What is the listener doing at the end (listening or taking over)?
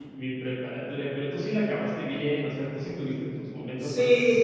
taking over